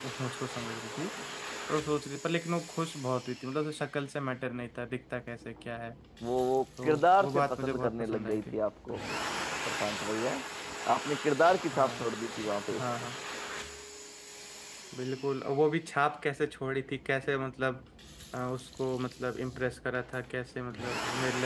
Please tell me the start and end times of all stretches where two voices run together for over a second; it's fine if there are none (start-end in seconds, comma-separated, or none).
6.8-8.6